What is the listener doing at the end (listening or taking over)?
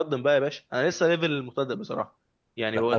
taking over